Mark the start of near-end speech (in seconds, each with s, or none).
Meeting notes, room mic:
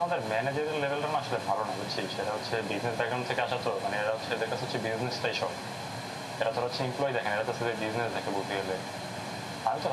none